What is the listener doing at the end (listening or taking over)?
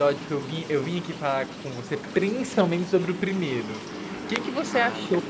listening